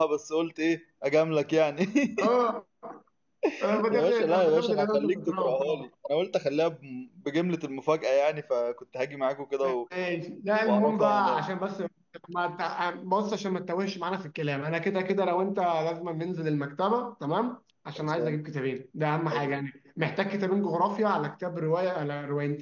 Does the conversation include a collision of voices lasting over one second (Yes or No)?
Yes